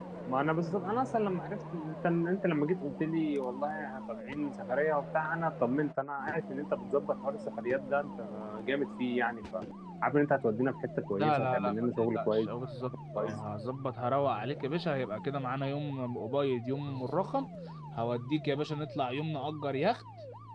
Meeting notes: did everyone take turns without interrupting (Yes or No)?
No